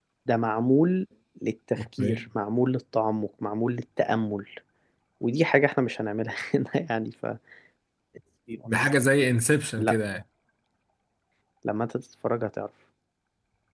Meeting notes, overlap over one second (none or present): none